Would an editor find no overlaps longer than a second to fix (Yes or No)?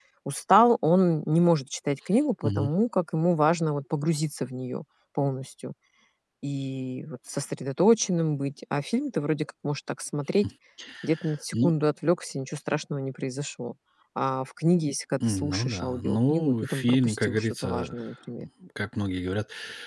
No